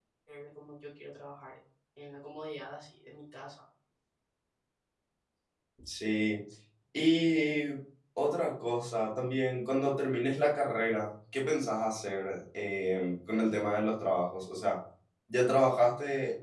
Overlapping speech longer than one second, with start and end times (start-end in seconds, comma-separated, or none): none